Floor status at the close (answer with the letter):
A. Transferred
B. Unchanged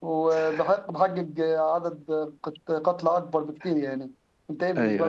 A